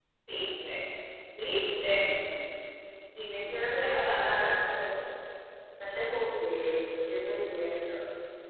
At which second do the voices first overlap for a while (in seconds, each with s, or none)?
3.4 s